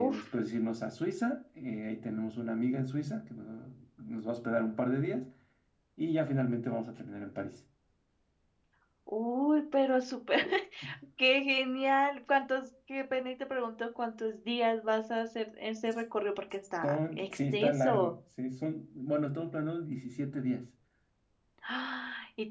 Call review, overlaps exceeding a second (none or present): present